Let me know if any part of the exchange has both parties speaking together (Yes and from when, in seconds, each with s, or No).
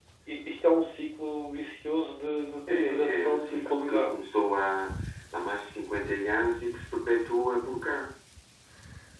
Yes, from 2.7 s